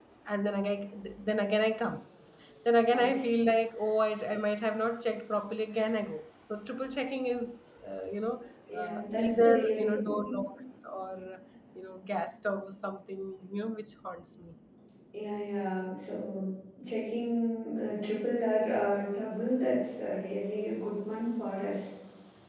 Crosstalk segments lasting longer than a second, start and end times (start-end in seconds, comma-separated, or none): 8.7-10.4